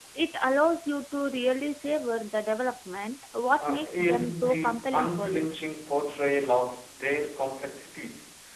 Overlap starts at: 4 s

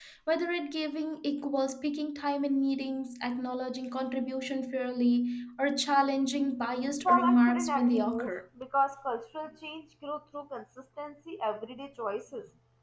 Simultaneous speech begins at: 7 s

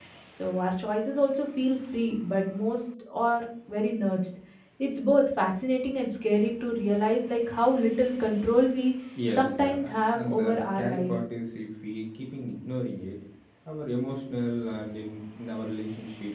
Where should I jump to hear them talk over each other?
9 s

